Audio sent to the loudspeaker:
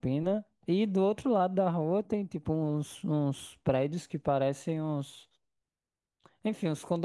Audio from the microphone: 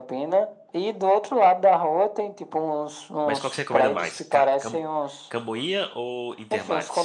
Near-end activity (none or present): present